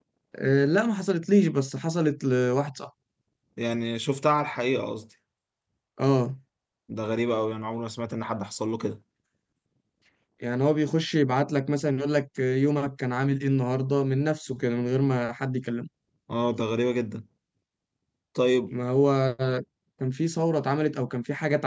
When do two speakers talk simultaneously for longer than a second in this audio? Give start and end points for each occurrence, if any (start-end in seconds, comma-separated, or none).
none